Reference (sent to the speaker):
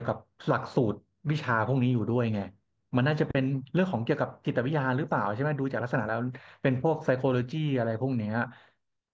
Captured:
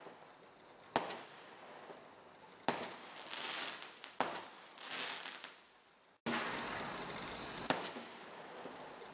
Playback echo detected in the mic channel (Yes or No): No